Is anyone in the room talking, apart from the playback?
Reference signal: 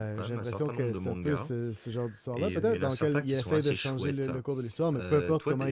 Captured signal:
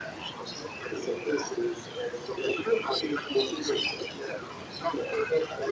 No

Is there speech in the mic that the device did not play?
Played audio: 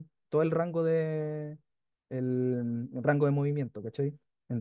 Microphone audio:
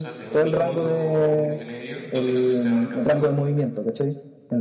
Yes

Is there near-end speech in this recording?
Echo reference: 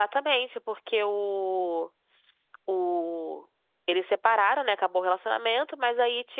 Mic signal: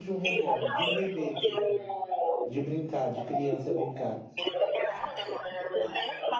Yes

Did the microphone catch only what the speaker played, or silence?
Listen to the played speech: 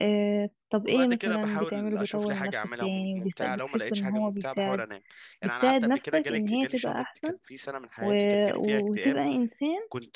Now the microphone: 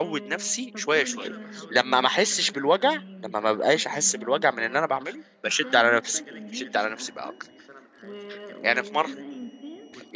No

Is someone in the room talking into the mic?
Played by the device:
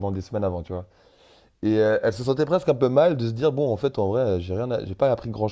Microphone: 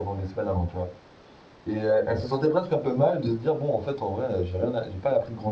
No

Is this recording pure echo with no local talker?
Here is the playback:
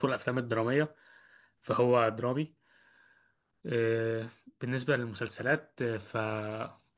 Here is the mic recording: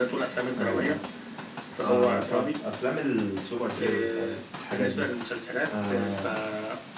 No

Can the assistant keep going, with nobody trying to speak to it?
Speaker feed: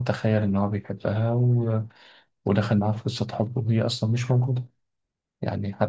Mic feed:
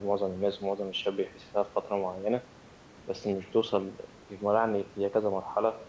No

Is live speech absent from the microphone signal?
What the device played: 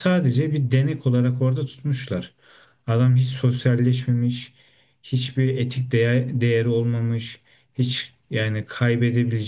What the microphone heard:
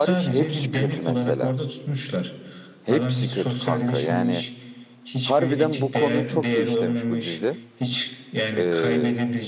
No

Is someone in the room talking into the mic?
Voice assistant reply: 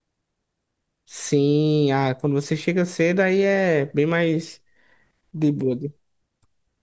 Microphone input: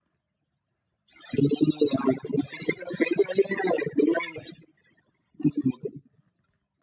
No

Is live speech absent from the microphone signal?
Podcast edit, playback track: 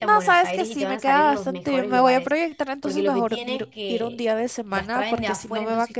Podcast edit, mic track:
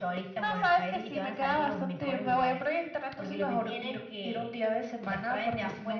Yes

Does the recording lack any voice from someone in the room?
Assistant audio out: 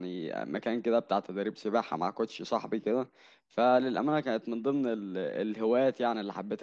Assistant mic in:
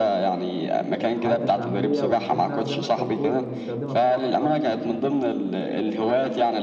No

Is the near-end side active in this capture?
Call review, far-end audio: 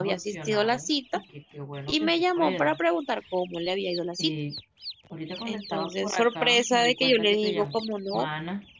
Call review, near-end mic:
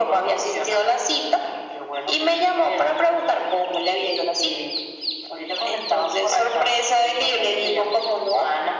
No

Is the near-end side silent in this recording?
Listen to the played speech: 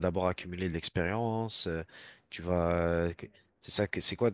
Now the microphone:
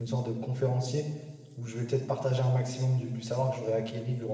No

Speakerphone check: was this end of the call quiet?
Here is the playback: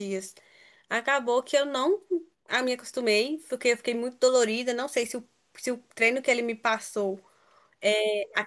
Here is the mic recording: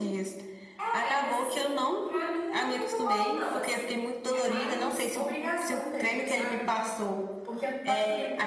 No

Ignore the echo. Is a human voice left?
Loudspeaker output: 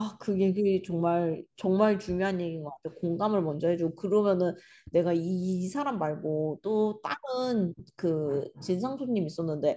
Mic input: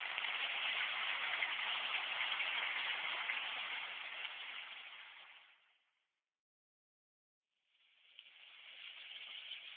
No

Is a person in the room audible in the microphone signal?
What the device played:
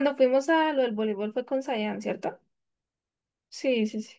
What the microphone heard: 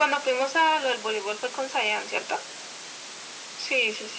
No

